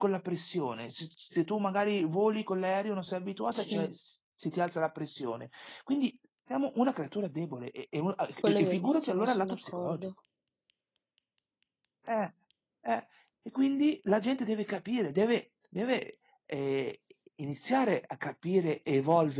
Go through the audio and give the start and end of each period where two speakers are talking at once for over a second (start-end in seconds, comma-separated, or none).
8.4-10.1